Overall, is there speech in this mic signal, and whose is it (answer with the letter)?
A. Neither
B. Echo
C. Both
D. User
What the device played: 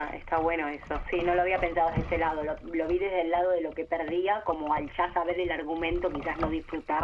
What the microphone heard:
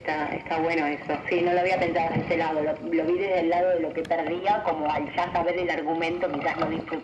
B